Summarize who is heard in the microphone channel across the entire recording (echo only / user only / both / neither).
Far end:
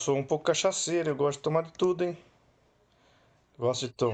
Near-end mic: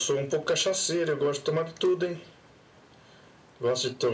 echo only